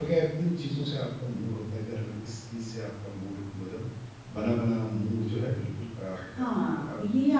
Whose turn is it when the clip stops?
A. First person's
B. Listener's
B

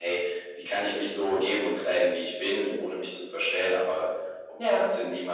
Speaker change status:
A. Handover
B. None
B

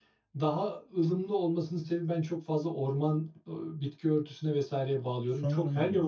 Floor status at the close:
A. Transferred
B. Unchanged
A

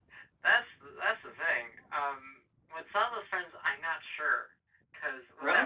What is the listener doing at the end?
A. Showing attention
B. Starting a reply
A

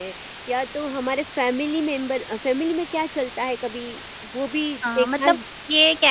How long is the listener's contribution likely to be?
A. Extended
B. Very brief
A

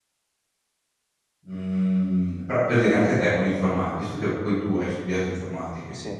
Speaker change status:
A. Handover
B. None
B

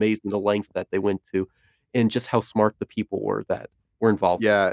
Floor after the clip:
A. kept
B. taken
B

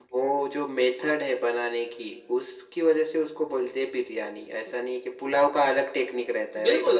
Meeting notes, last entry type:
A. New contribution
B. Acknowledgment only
A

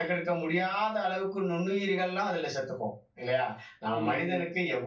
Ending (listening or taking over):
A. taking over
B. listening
B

